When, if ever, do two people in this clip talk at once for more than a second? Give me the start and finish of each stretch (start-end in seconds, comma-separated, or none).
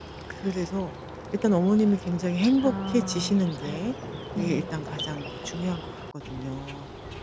2.6-3.9